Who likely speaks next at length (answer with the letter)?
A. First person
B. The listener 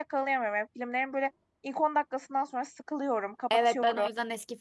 B